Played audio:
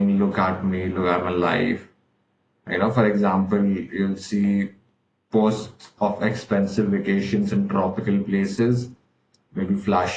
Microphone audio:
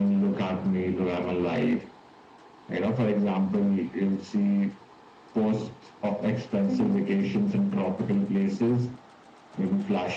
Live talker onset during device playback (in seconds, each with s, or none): 6.7 s